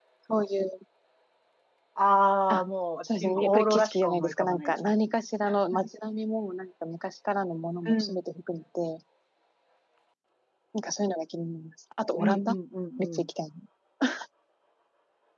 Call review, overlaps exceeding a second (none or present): present